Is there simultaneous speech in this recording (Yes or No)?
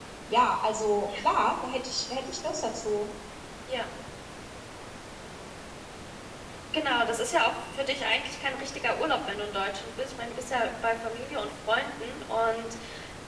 No